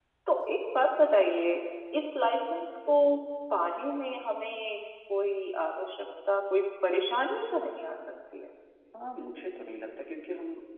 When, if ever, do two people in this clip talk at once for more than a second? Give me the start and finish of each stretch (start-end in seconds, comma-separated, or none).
none